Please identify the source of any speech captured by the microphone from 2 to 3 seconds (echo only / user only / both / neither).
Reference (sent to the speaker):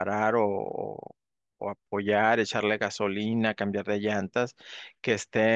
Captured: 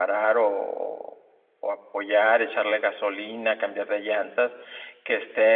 echo only